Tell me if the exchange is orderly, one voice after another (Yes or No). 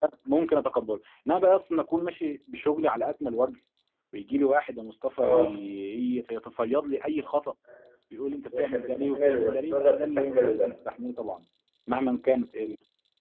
No